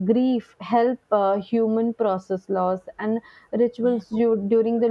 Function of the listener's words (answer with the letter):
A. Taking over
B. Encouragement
B